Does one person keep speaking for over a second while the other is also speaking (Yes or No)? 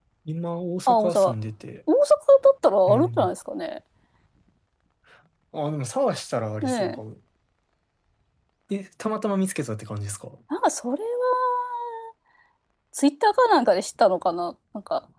No